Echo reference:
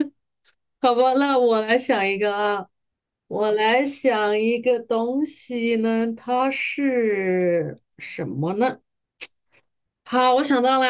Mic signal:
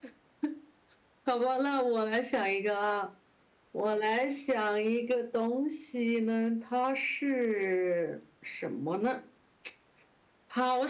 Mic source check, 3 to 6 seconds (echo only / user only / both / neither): echo only